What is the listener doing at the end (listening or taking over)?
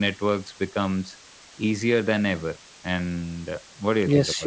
taking over